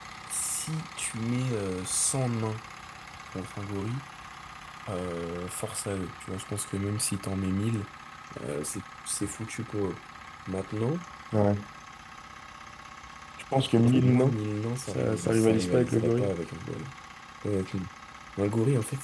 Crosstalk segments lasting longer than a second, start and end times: 14.9-16.3

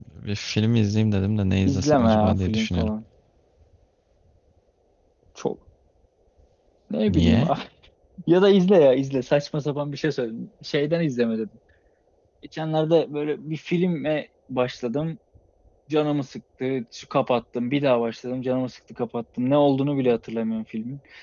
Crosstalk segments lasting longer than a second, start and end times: 1.7-2.9

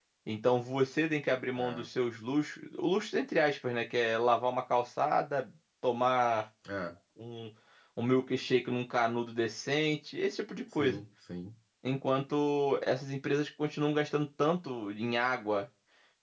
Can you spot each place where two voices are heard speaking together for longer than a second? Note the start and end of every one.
none

